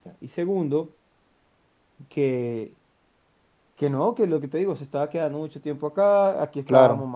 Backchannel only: Yes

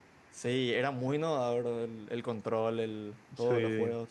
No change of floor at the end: No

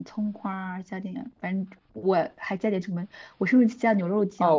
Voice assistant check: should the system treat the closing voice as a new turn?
Yes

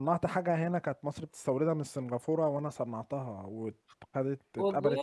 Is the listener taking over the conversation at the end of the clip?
No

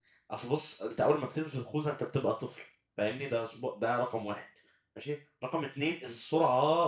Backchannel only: Yes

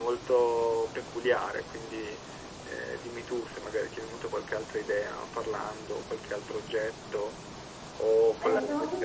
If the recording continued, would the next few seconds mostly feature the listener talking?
Yes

